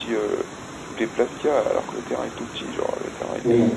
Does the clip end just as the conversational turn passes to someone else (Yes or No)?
Yes